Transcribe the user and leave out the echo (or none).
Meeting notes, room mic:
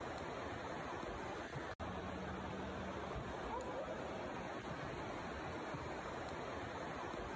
none